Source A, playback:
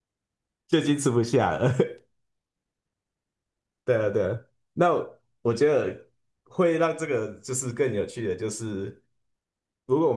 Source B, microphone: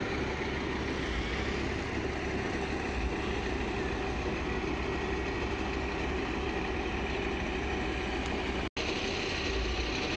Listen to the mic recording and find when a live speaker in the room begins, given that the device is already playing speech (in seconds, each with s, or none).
none